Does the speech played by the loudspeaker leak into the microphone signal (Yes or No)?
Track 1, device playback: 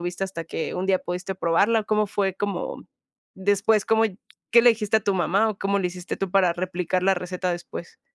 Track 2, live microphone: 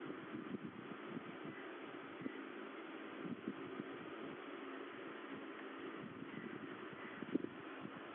No